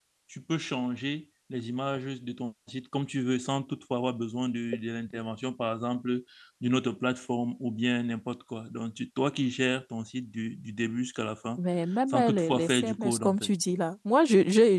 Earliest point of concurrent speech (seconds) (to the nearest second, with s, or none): 12 s